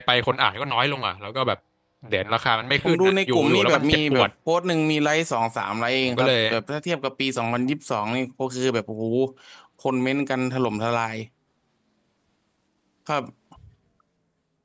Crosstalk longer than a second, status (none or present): present